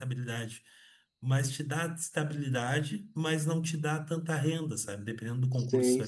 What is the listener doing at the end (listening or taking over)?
listening